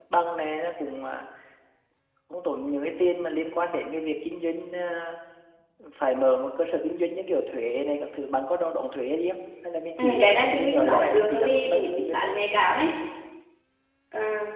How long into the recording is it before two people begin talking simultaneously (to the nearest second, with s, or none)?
10 s